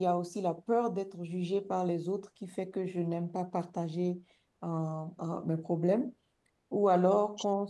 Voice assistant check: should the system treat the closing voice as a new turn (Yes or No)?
No